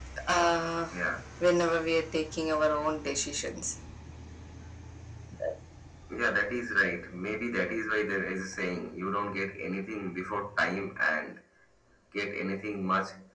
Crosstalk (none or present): none